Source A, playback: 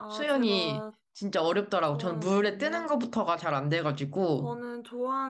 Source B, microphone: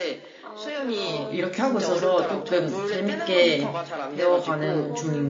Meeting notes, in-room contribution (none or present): present